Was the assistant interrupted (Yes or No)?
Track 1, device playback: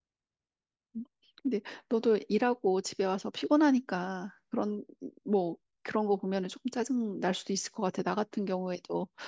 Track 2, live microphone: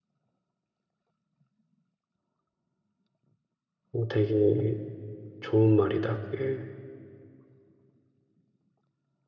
Yes